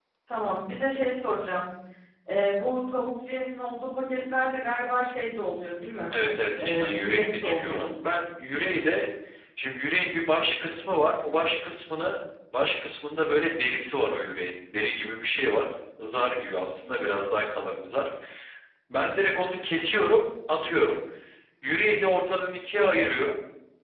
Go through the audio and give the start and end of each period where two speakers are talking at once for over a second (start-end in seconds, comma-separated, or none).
6.6-7.9